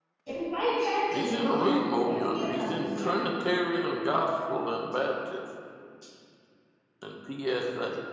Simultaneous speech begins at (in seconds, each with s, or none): 1.1 s